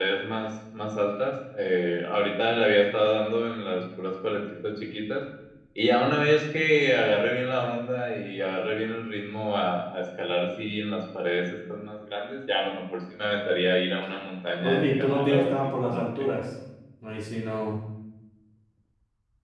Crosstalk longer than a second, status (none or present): present